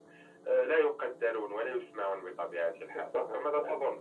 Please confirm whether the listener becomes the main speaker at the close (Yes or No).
Yes